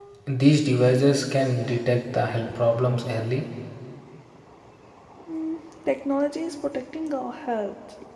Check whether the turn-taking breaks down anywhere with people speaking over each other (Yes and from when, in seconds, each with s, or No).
No